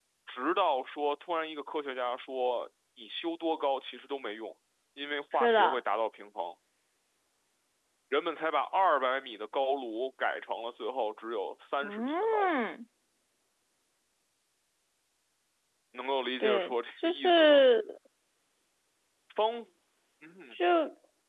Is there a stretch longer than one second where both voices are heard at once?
Yes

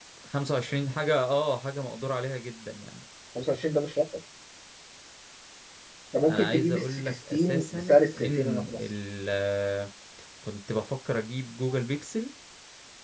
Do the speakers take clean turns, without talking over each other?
No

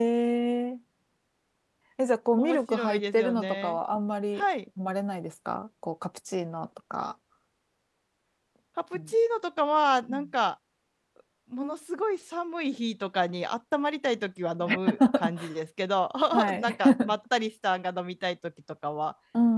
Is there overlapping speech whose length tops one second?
Yes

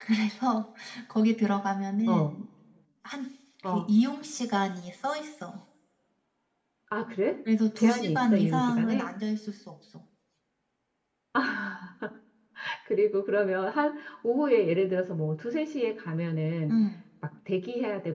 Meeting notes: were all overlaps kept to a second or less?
No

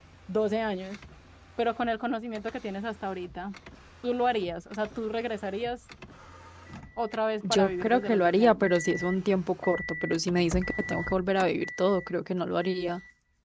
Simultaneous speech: Yes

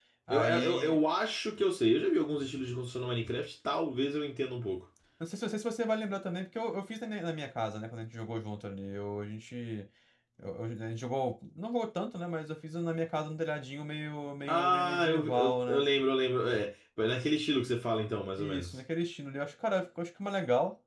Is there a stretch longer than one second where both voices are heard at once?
Yes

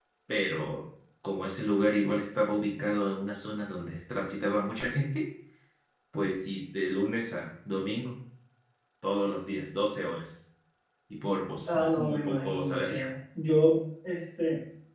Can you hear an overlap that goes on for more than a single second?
Yes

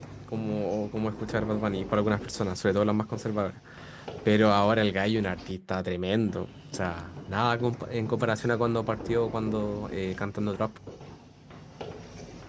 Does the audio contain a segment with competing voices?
No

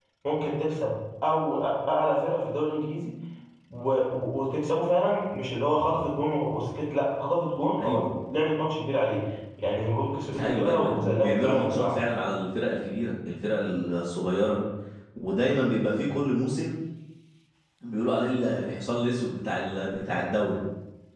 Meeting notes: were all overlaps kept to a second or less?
No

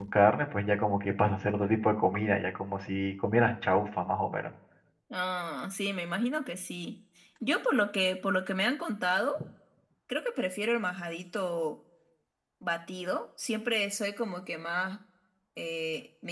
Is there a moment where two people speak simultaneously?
No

